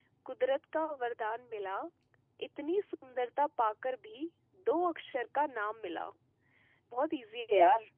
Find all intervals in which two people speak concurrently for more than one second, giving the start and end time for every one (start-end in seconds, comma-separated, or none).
none